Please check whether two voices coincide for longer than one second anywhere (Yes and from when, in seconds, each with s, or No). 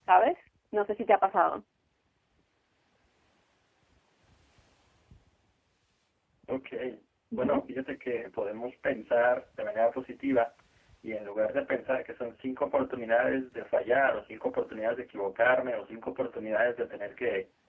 No